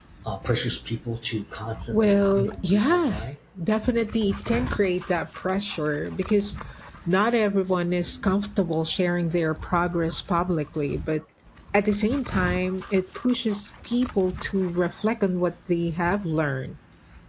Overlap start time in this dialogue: 1.9 s

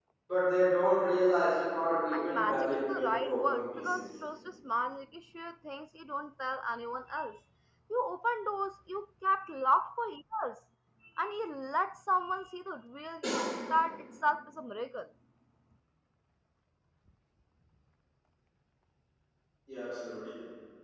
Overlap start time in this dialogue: 2.1 s

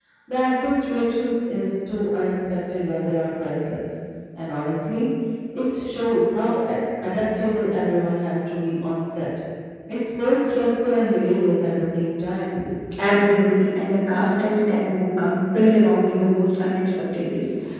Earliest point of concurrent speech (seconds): none

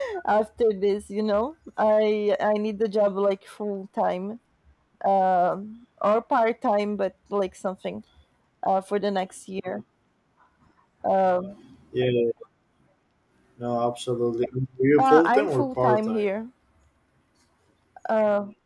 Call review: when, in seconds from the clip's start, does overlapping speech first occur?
15.0 s

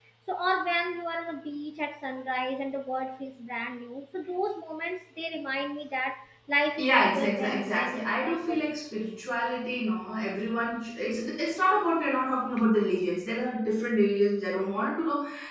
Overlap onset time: 6.8 s

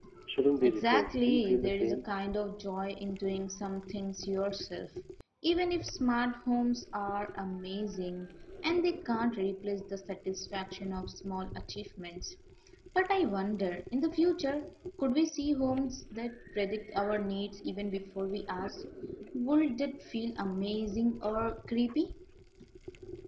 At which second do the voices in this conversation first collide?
0.6 s

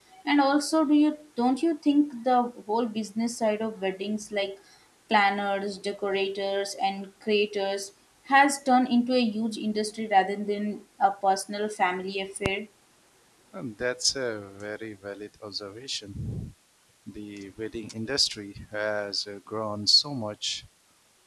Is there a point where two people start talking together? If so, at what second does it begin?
none

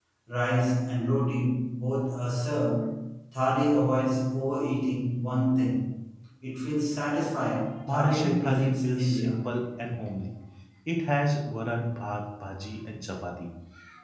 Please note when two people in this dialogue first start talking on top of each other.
7.9 s

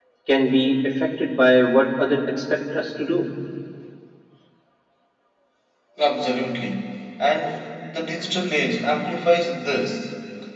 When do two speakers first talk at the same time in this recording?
none

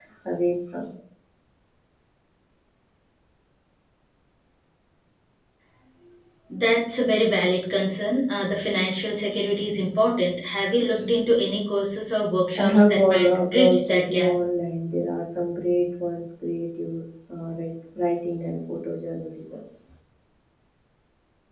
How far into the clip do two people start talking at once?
12.6 s

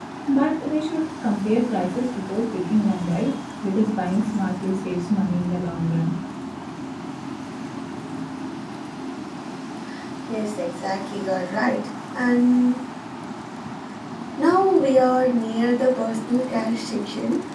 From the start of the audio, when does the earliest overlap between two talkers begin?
none

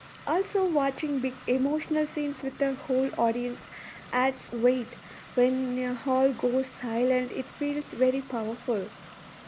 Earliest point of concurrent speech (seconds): none

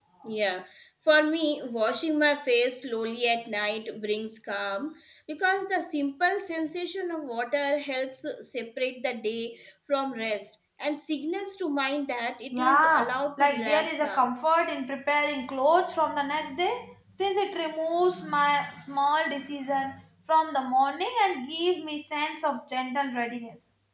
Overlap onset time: 12.5 s

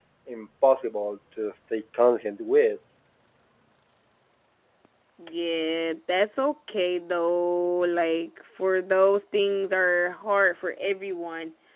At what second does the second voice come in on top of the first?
none

